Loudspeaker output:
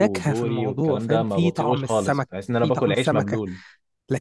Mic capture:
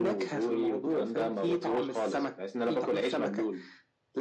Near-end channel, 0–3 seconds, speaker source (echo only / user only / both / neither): echo only